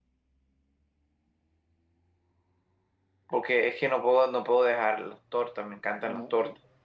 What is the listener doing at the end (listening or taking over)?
taking over